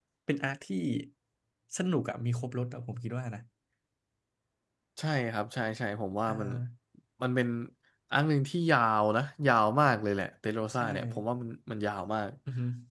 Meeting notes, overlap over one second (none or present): none